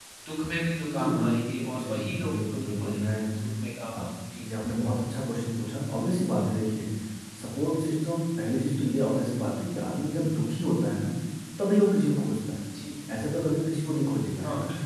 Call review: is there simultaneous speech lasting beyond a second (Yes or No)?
Yes